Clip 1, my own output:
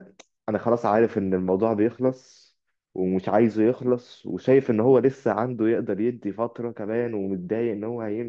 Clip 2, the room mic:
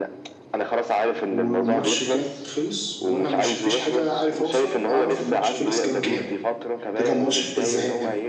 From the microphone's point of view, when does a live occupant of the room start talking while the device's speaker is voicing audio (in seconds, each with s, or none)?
1.3 s